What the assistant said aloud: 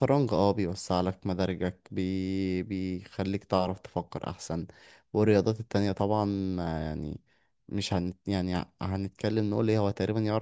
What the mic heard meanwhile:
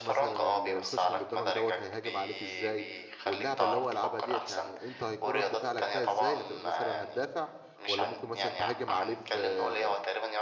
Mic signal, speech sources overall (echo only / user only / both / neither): both